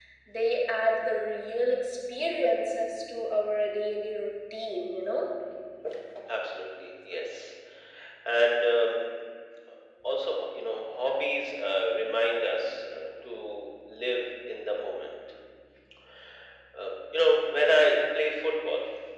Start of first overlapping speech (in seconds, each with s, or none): none